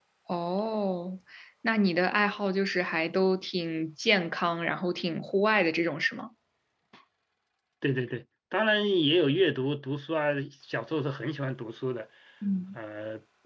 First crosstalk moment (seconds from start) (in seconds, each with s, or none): none